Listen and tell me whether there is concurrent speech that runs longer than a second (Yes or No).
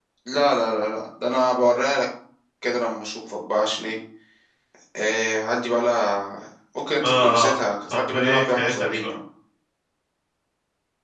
Yes